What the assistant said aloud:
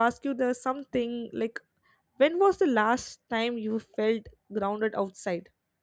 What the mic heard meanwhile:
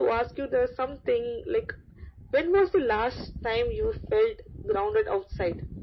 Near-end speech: none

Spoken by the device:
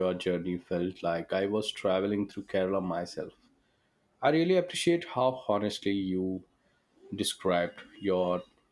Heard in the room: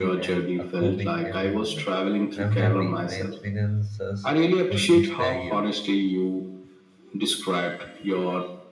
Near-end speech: present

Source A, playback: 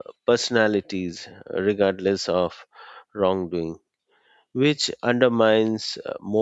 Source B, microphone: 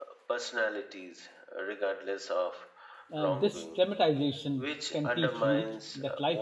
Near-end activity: present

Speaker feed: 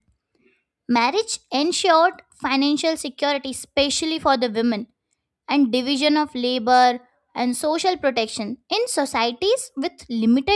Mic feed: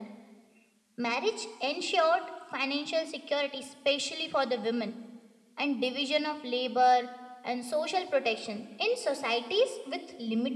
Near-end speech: none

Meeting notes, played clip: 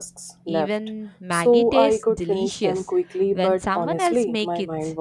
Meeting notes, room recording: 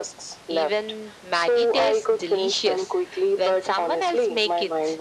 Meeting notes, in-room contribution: none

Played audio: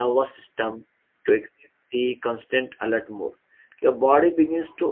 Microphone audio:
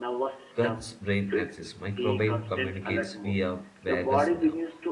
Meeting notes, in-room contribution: present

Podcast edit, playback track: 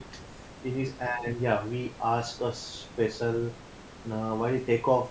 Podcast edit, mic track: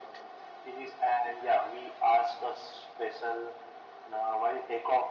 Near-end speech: none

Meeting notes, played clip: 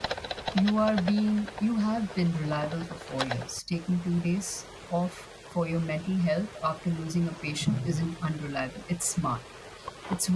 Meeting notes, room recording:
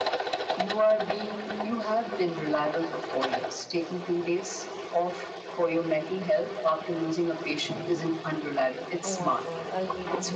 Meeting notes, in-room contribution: present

